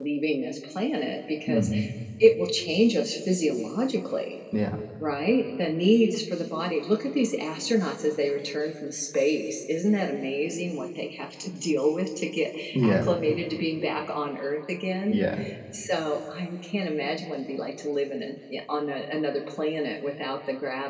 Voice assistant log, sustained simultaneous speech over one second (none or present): none